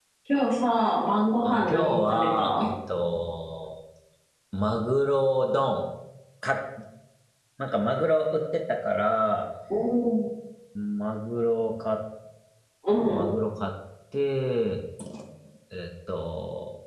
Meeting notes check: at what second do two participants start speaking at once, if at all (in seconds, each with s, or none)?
1.4 s